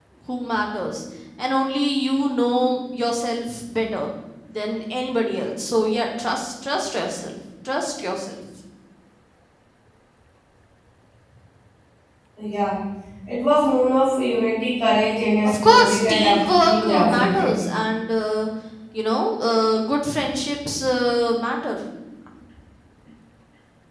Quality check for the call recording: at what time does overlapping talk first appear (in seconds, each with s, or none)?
15.4 s